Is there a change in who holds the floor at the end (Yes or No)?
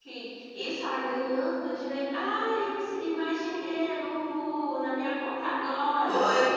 Yes